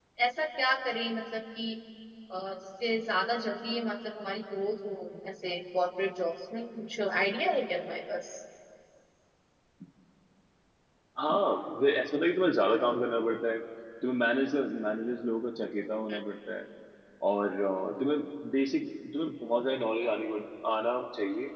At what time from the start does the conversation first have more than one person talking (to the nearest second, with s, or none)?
none